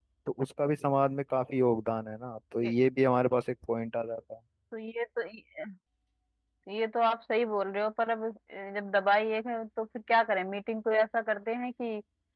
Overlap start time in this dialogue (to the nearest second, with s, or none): none